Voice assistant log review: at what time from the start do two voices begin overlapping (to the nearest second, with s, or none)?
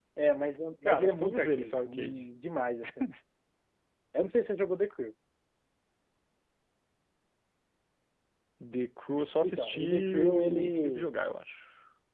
1 s